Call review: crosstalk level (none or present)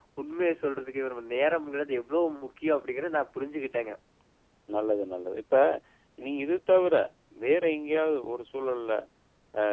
none